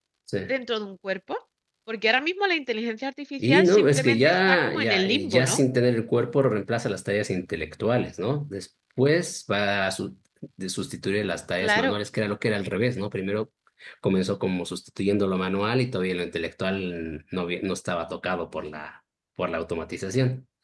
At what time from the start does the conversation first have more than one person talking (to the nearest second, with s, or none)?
3 s